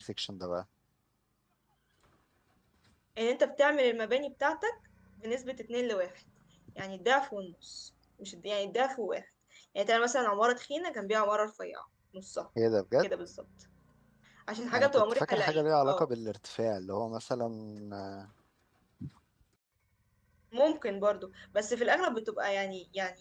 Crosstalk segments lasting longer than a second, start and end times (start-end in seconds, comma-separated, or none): 14.8-16.1